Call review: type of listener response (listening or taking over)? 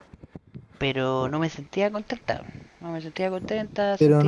taking over